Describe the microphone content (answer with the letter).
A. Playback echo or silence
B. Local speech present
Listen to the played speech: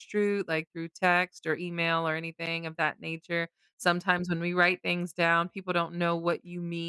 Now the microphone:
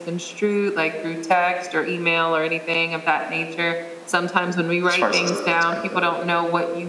B